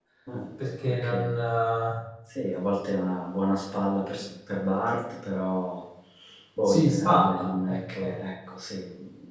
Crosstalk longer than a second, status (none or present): present